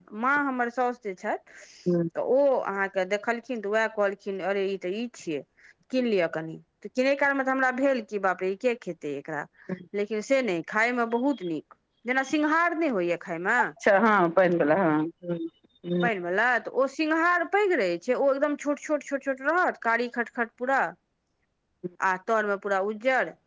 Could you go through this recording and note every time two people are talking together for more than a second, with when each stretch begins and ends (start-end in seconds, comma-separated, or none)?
none